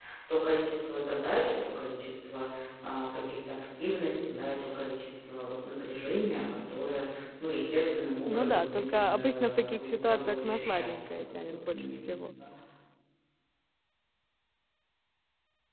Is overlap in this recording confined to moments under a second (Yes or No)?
No